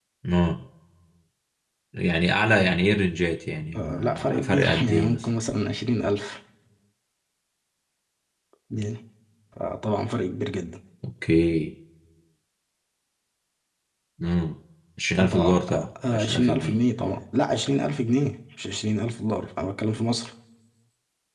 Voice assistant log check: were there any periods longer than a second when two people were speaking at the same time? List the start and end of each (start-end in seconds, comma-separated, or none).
3.8-5.2, 15.2-16.8